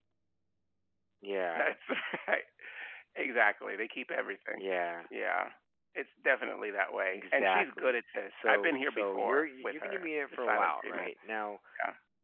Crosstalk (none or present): present